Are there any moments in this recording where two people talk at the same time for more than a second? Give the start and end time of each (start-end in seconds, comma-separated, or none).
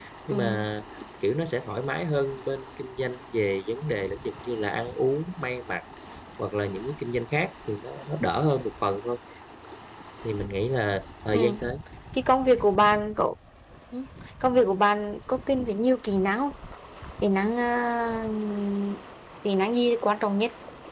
none